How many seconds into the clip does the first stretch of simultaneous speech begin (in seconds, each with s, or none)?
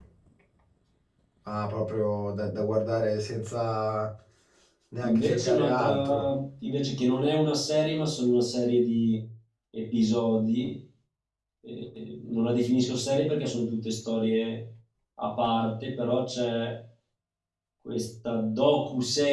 5.0 s